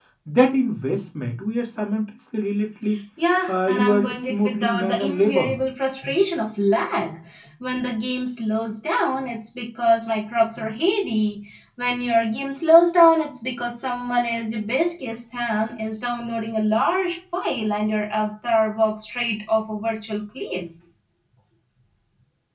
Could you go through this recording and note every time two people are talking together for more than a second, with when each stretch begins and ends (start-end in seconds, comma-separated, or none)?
3.5-5.6